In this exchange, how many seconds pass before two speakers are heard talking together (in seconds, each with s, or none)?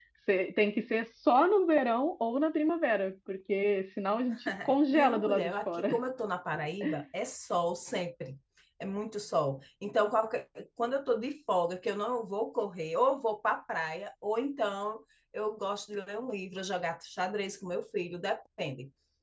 4.4 s